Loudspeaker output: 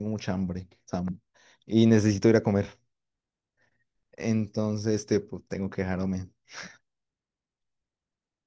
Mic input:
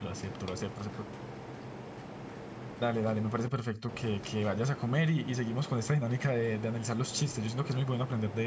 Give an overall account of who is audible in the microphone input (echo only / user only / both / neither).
user only